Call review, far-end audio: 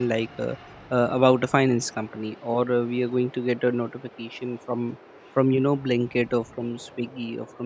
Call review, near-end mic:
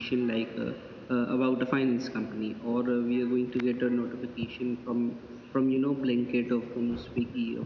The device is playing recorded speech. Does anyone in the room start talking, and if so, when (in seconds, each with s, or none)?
none